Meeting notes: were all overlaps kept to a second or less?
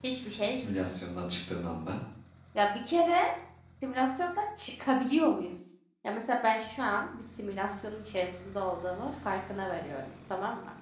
Yes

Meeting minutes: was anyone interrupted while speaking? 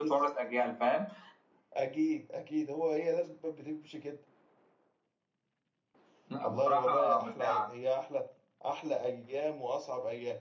Yes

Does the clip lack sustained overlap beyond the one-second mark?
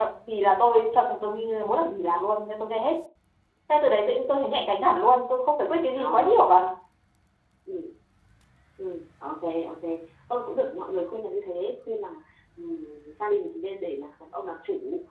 Yes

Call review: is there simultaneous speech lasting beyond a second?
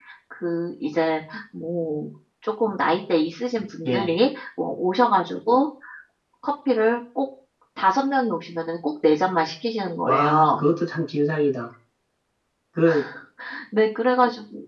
No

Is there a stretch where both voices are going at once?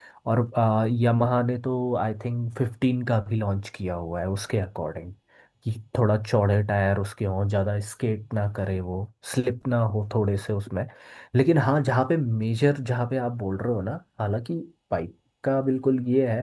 No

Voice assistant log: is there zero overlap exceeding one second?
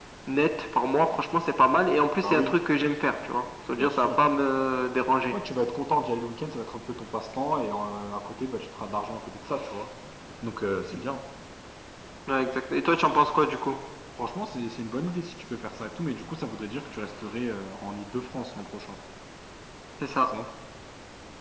Yes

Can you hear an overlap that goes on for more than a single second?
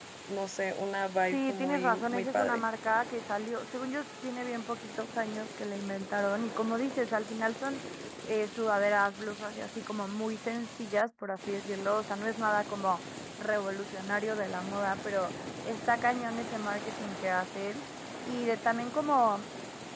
Yes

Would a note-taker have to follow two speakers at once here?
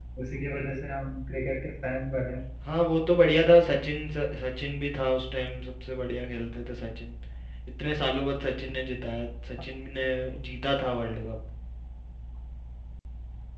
No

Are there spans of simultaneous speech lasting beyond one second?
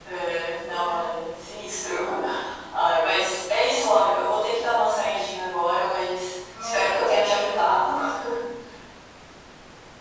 Yes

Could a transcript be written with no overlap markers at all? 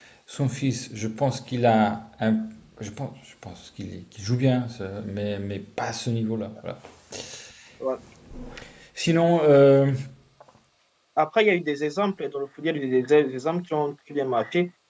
Yes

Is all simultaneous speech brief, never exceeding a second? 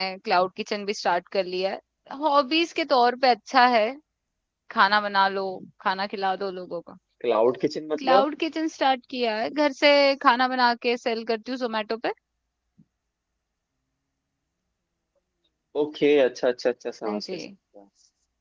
Yes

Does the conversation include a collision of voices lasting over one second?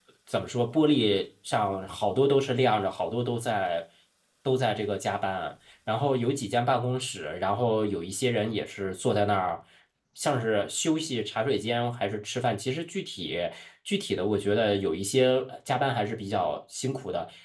No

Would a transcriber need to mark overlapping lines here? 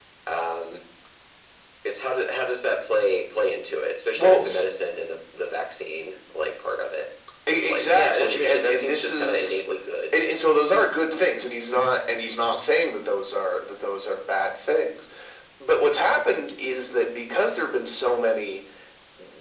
Yes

